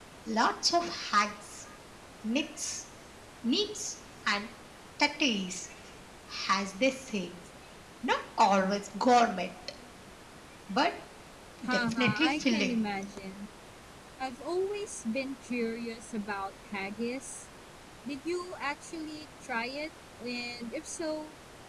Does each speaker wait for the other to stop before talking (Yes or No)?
No